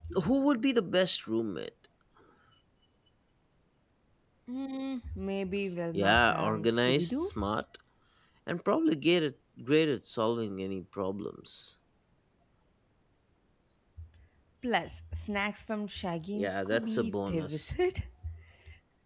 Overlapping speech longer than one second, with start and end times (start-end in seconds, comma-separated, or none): 5.9-7.4, 16.3-17.7